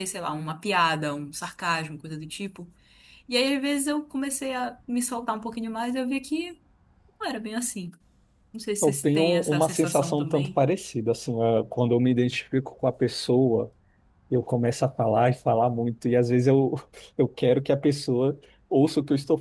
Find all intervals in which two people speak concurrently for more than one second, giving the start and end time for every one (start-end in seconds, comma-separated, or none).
8.8-10.6